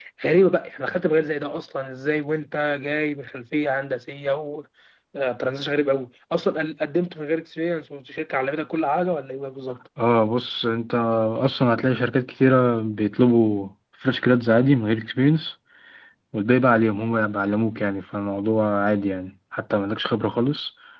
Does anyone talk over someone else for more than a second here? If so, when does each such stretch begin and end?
none

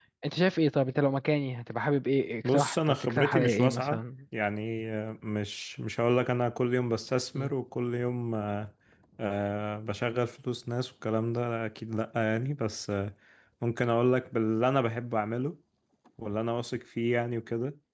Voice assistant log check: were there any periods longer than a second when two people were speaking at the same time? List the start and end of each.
2.4-4.0

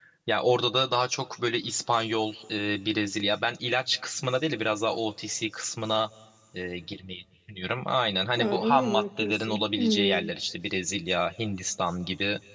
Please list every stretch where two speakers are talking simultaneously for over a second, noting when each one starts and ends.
8.4-10.3

